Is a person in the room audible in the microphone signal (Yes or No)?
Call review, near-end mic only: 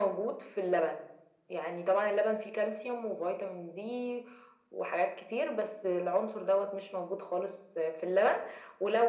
No